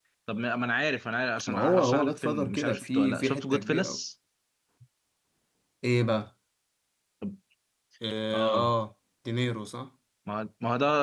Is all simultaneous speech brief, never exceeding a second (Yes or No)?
No